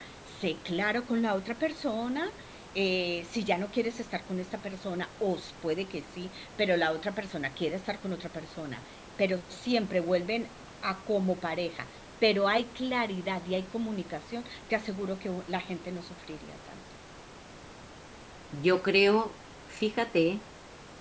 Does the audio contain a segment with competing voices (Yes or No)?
No